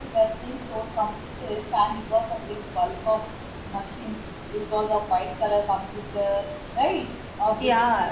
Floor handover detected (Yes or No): Yes